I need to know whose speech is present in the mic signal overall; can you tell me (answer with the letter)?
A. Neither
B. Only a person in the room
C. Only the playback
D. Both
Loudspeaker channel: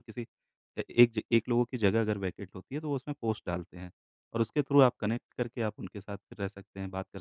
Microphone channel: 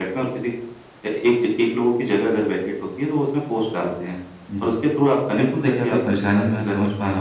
D